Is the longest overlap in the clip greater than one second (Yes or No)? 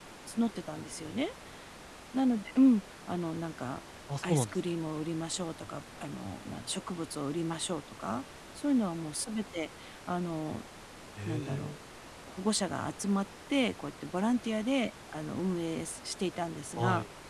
No